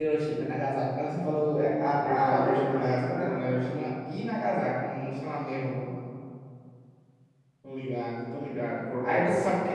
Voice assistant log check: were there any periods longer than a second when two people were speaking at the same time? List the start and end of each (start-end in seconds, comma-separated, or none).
2.0-3.6